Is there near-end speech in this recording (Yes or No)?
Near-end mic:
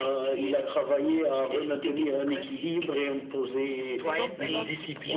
Yes